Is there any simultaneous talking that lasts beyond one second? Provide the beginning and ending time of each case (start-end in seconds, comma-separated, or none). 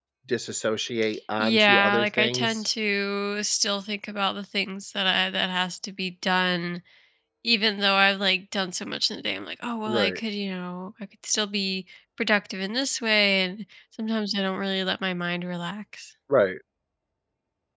1.4-2.6